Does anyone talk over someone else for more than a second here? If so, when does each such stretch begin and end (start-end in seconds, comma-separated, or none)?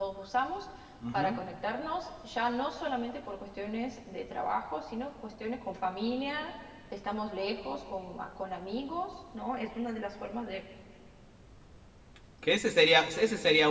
none